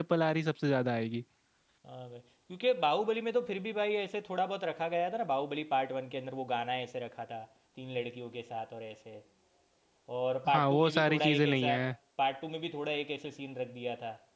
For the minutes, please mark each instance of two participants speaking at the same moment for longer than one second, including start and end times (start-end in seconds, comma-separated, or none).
10.5-11.7